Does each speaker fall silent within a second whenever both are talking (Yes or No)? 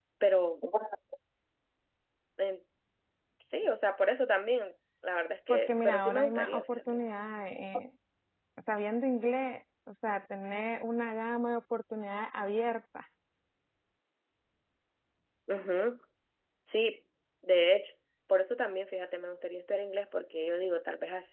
No